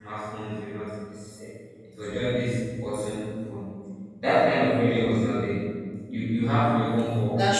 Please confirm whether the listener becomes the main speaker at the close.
No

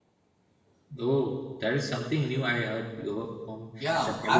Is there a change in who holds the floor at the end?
Yes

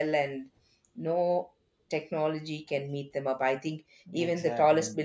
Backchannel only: Yes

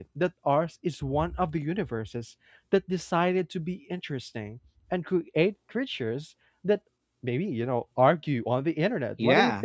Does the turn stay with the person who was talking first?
No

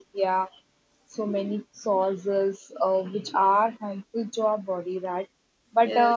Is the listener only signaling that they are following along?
Yes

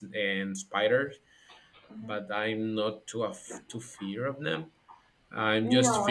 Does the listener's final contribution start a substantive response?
No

